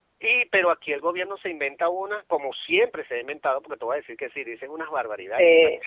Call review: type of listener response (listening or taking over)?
listening